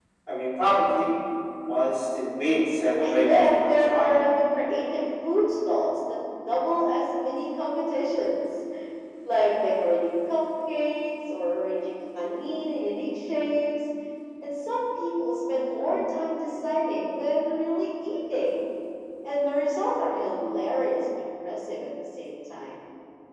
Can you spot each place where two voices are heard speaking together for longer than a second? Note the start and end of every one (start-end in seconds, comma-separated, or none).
3.0-4.3